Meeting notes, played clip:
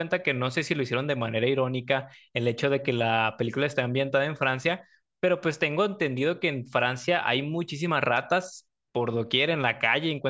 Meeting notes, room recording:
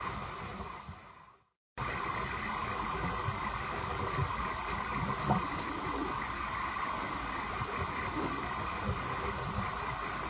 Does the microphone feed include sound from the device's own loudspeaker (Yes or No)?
No